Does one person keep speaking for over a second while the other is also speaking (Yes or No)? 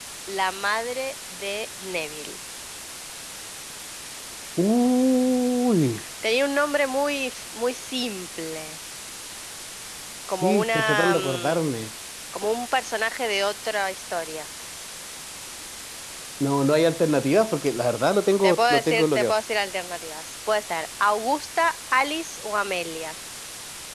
Yes